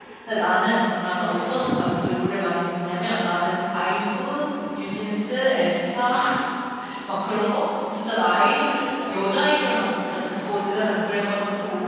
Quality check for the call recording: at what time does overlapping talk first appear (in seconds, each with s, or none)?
none